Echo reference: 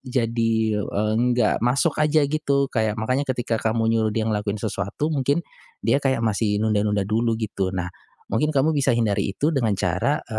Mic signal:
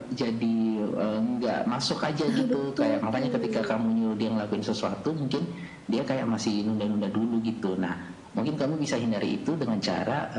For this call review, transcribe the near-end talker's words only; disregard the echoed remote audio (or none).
Nah, betul tuh.